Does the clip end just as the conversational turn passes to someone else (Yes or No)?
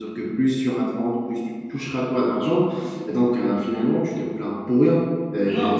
Yes